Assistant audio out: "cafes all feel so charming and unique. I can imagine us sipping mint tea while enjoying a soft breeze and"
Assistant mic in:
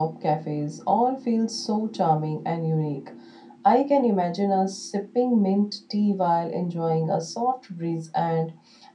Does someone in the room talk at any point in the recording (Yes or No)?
No